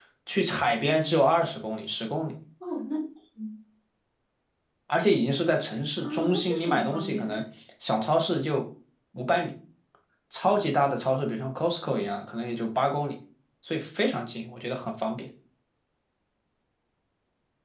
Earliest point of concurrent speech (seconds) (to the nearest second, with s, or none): 6 s